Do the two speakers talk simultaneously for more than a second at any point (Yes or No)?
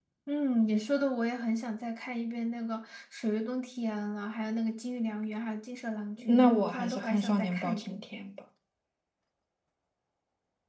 Yes